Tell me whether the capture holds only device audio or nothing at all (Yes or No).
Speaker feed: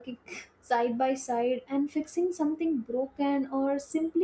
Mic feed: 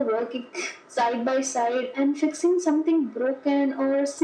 Yes